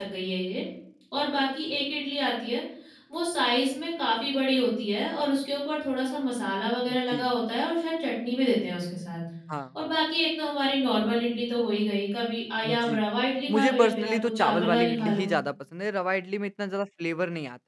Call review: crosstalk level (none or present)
present